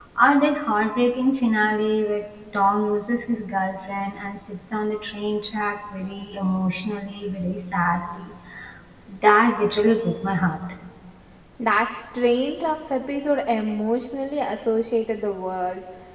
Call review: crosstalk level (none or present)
none